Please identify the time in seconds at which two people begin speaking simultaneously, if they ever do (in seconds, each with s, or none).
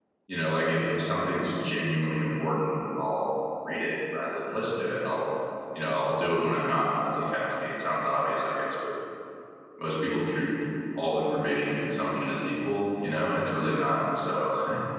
none